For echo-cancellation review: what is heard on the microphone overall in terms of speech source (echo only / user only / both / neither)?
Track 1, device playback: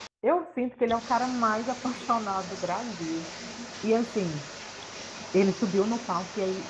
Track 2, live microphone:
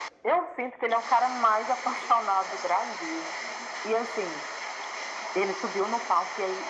echo only